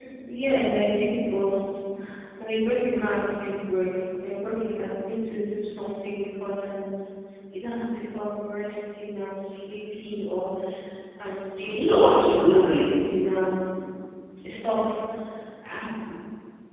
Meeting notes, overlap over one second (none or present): present